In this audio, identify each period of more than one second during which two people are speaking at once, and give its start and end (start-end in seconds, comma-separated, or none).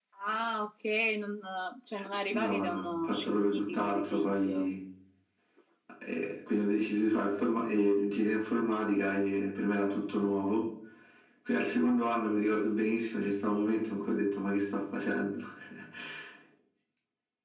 2.3-4.7